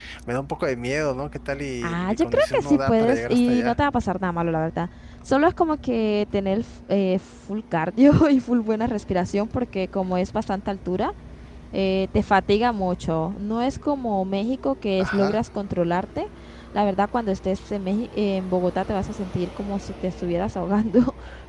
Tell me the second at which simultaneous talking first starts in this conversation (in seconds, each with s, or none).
1.8 s